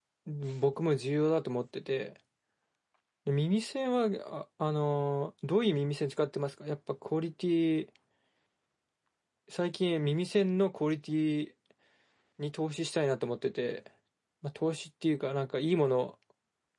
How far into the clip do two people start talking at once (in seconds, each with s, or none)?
none